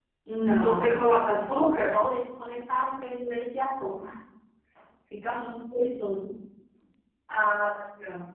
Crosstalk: present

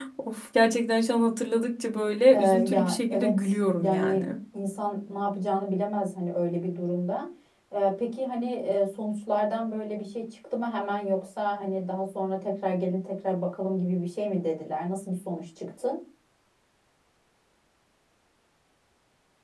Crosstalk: present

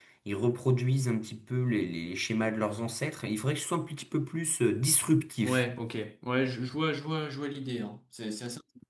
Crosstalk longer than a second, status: none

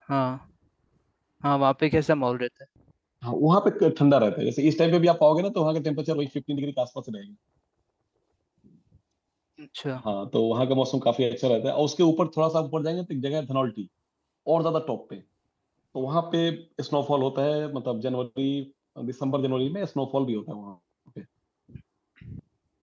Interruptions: none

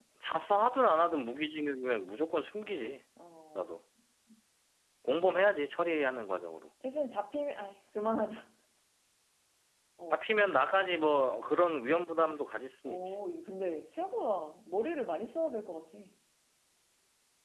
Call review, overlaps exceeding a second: none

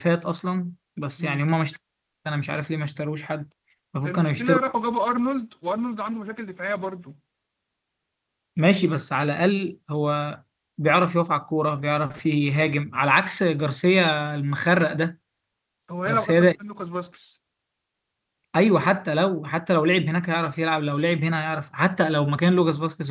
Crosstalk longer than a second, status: none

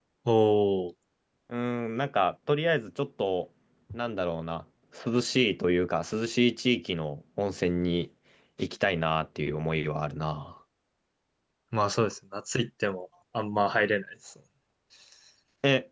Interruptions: none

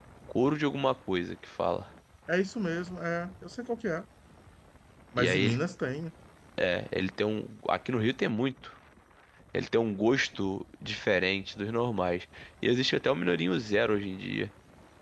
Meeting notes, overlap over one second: none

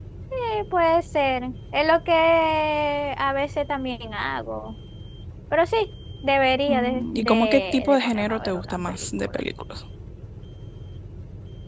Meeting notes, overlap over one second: present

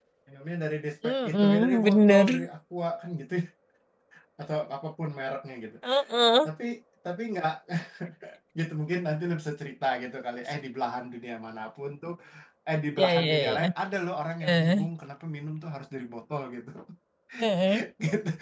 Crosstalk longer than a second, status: present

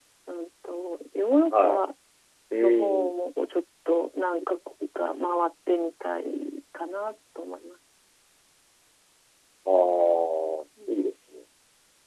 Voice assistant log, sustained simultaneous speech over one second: none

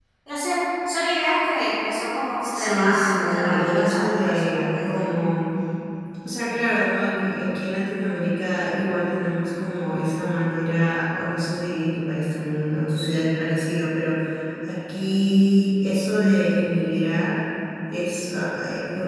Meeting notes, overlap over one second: present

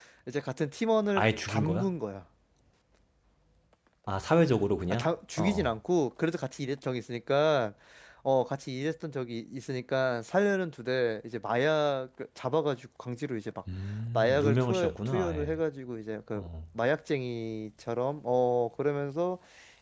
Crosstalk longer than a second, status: present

